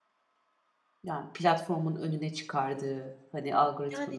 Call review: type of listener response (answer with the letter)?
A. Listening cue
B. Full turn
B